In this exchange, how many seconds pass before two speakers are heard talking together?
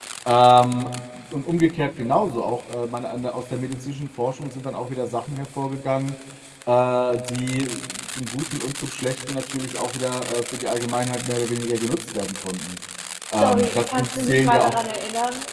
13 s

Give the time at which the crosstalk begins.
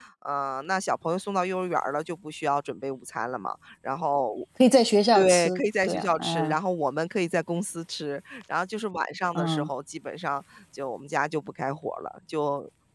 5 s

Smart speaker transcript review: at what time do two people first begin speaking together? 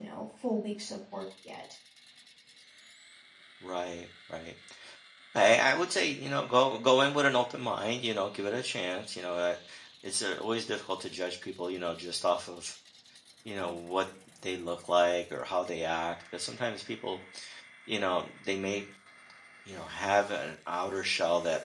none

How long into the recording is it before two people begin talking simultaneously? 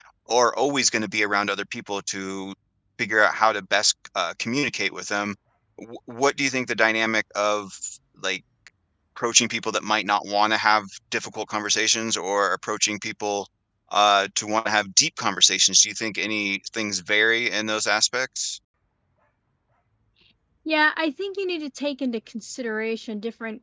none

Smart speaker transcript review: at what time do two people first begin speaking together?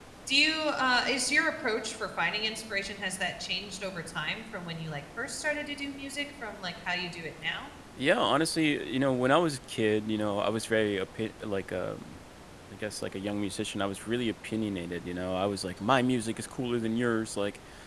none

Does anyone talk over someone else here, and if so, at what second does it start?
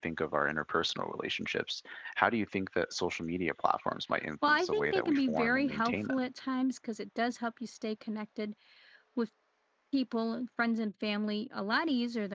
4 s

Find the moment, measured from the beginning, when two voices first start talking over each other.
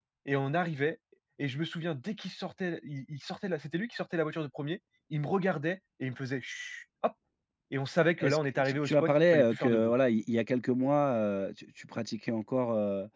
8 s

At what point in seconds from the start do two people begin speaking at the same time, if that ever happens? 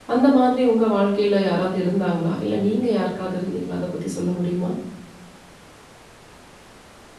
none

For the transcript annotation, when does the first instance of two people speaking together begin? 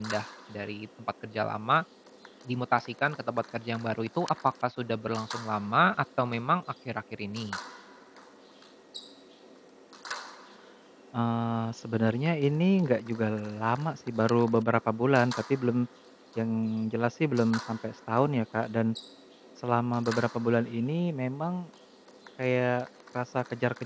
none

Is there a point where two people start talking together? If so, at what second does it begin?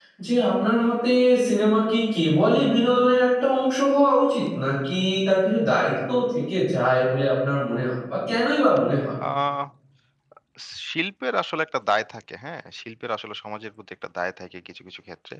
none

